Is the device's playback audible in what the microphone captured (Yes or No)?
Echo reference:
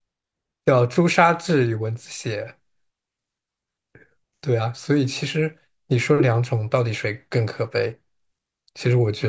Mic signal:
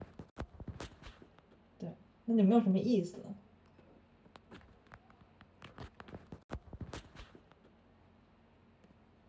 No